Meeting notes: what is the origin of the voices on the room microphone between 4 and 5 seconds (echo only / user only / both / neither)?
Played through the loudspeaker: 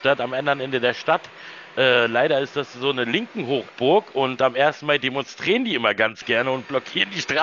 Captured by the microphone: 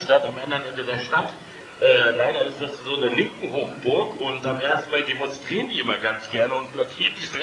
echo only